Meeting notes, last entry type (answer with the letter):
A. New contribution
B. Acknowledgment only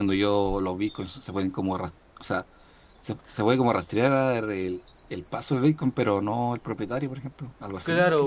A